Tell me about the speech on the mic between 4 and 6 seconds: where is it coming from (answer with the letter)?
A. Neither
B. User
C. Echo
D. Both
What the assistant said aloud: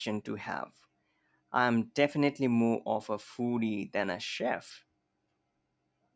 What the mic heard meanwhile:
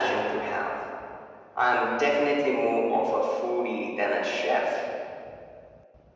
C